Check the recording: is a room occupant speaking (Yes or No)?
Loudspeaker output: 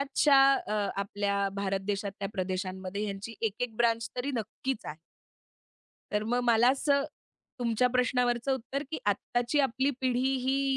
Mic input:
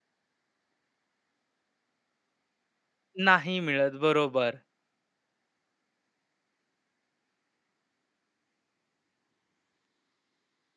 Yes